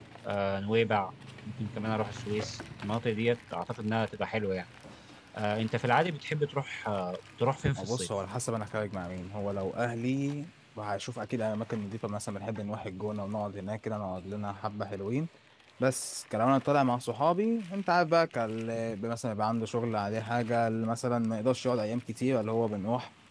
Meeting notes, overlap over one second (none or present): none